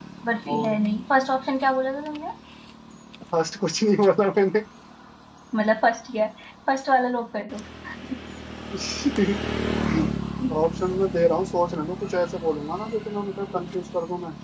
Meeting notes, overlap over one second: none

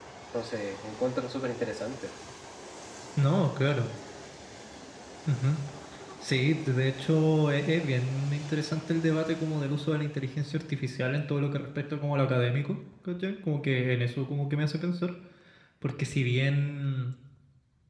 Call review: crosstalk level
none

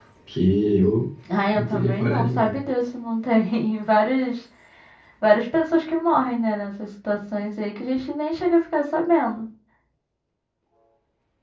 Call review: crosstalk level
present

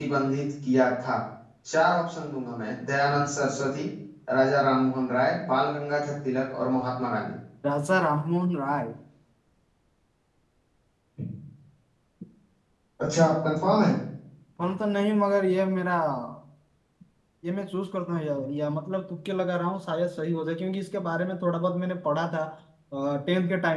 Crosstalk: none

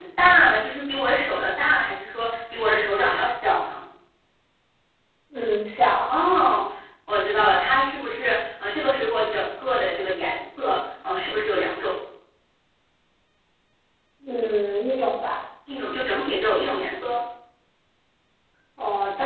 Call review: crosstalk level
none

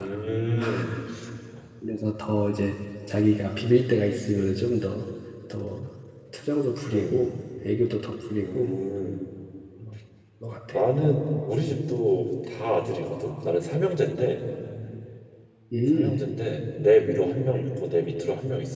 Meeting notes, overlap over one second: none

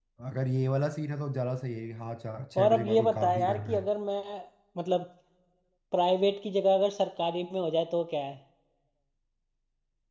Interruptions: present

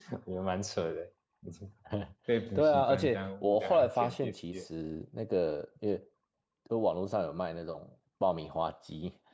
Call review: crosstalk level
present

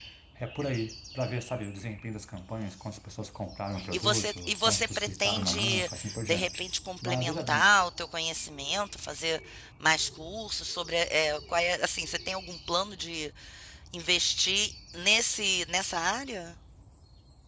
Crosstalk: present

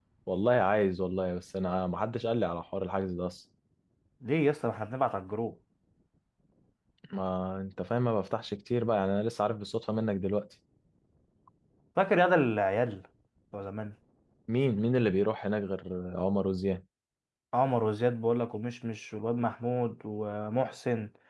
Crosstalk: none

